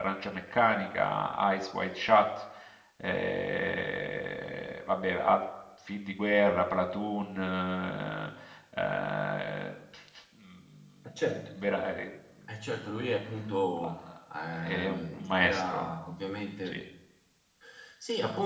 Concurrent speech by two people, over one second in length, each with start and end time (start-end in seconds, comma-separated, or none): 14.6-15.9